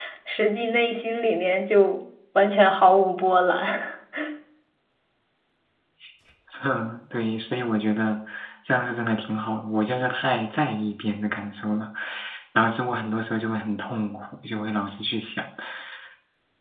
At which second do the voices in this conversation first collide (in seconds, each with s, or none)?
none